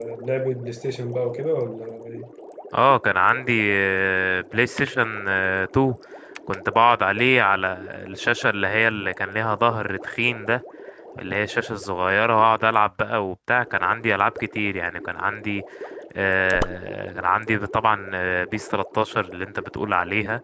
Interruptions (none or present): none